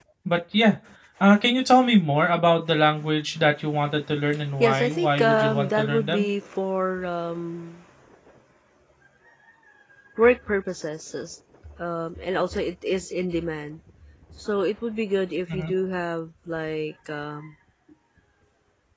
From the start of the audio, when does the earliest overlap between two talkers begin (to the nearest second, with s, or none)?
5 s